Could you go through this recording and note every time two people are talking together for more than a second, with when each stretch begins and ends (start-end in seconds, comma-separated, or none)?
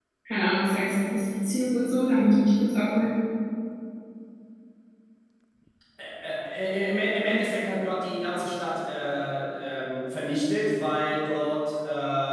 none